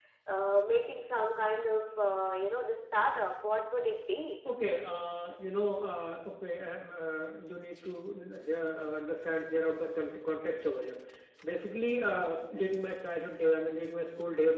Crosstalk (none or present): none